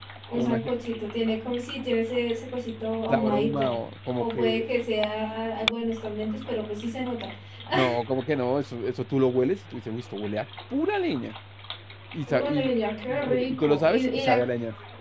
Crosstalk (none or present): present